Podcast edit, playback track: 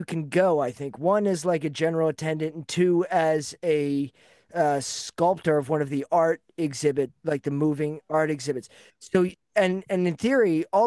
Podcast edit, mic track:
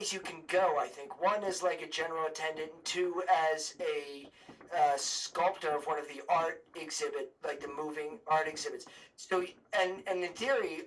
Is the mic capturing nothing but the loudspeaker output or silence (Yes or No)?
Yes